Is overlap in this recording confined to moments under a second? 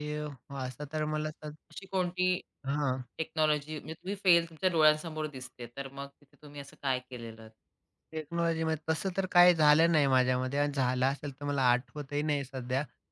Yes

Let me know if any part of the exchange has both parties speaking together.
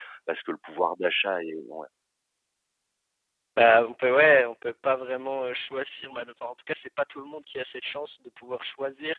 No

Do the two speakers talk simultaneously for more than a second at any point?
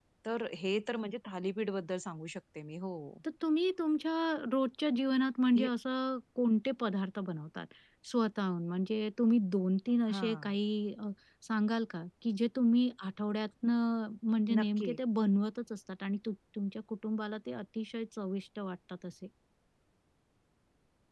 No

